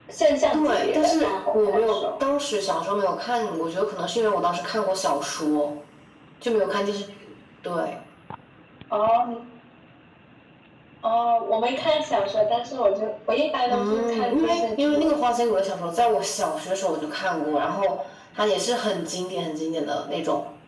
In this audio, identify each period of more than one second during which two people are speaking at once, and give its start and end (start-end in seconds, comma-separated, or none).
0.5-2.0, 13.7-15.1